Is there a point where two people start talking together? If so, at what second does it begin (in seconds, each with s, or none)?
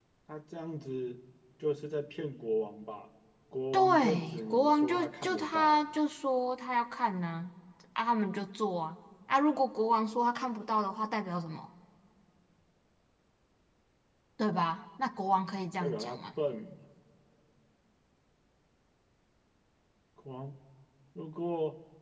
3.7 s